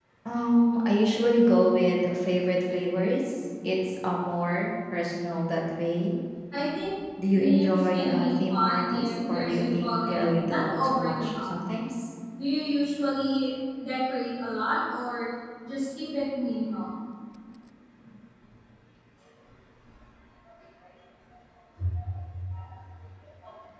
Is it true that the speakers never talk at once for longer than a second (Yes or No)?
No